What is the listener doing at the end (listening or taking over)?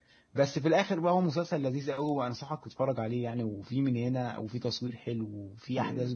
taking over